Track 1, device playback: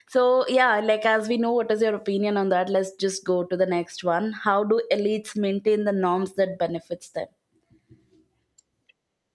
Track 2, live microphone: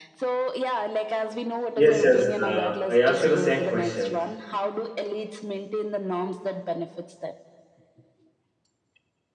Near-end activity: present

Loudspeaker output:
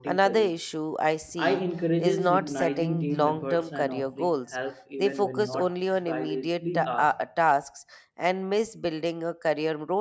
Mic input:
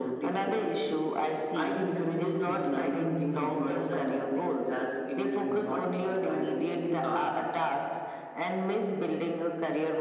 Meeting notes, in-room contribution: none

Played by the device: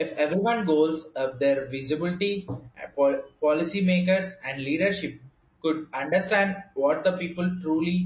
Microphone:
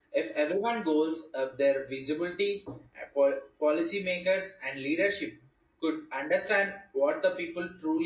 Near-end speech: none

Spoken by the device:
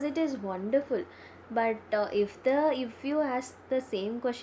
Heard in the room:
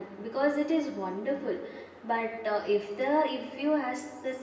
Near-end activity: none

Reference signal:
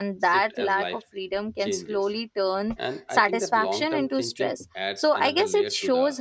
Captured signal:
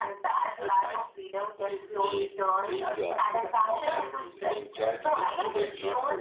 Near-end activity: present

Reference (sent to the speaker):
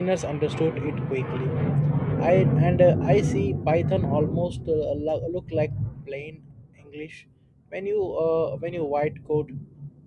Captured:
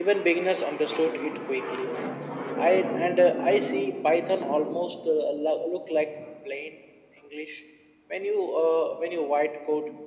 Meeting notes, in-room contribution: none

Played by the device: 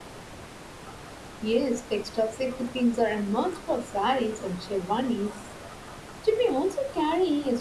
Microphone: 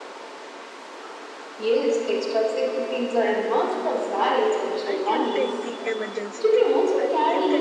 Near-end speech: present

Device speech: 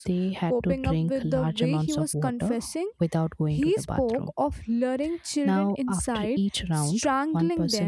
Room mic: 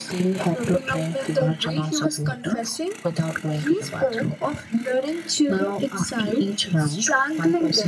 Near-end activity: none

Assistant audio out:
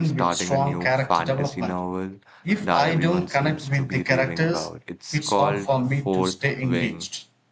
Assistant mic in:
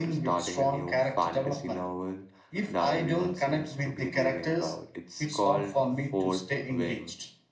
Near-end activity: none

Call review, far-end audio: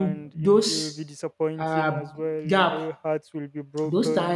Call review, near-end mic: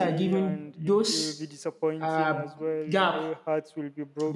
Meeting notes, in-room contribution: none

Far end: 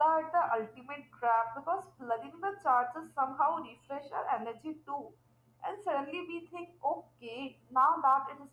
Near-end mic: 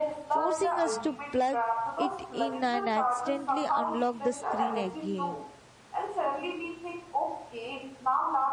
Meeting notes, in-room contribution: present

